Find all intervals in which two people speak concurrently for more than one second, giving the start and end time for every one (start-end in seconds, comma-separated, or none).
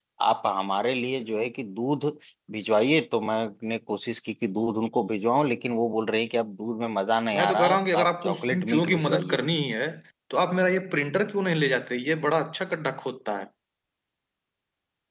7.3-9.4